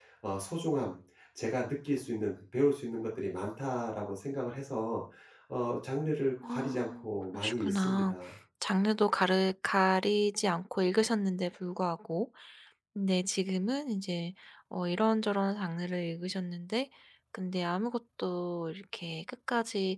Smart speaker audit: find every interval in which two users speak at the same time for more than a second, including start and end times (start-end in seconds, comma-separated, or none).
6.4-8.2